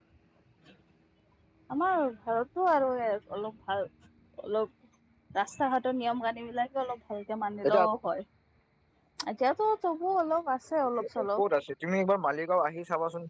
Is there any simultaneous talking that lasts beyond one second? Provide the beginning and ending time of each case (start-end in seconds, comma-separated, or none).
none